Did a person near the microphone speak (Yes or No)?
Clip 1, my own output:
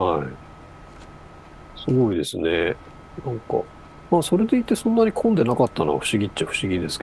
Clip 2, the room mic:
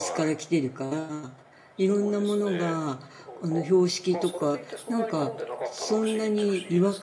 Yes